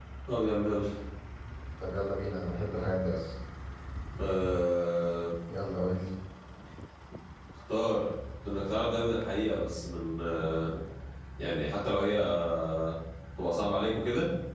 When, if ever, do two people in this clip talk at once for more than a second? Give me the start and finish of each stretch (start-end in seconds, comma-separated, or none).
none